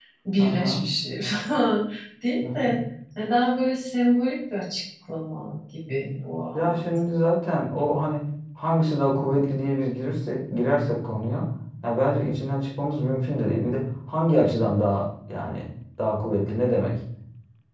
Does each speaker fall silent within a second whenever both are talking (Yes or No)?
Yes